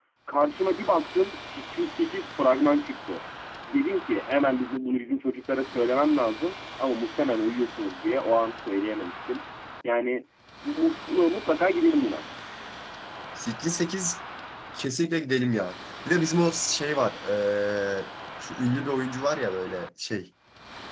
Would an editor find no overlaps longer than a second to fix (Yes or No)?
Yes